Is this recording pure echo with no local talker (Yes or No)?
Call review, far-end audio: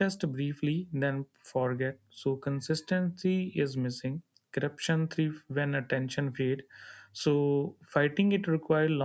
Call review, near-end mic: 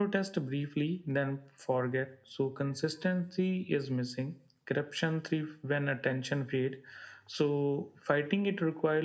Yes